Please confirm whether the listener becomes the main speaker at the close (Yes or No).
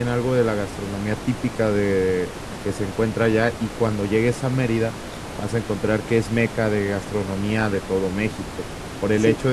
No